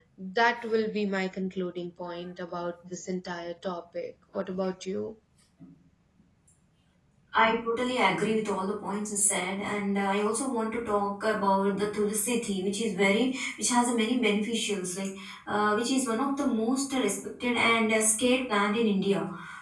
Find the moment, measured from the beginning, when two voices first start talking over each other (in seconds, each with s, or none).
none